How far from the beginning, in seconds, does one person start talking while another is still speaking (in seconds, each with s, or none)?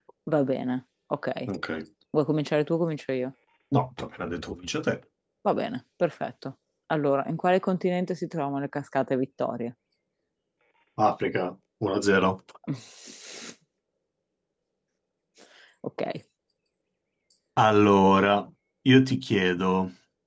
none